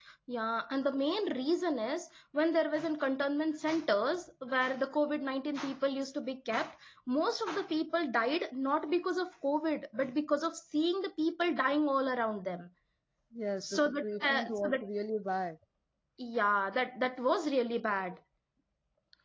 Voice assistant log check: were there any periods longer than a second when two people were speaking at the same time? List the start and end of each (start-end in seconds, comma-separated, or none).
13.6-14.8